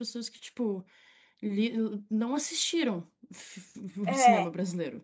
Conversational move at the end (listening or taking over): listening